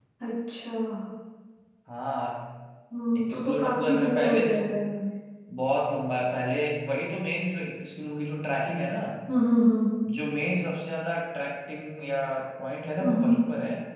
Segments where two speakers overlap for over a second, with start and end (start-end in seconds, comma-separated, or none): 3.2-4.7